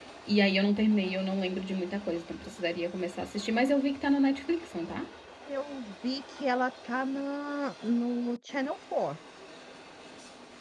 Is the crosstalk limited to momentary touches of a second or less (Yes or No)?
Yes